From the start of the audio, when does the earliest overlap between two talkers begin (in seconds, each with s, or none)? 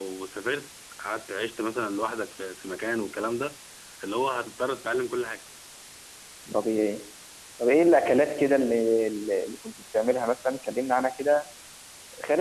none